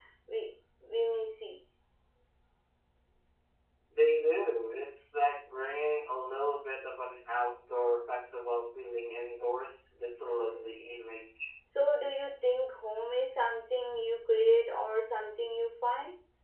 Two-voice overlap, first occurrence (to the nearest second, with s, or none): none